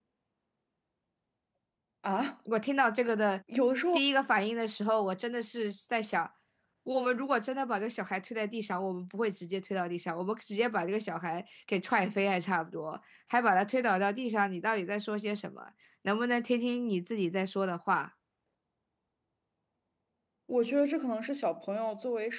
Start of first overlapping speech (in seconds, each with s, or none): none